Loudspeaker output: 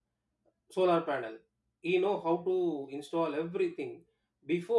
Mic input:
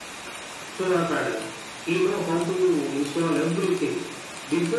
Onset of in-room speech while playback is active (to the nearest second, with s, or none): none